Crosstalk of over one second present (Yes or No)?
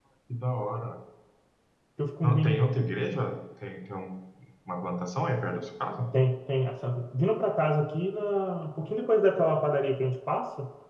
No